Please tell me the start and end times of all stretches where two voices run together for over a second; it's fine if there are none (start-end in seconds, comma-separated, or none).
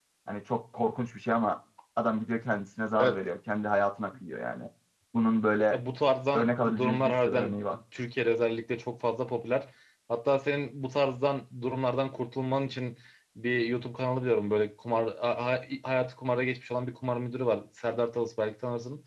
6.3-7.8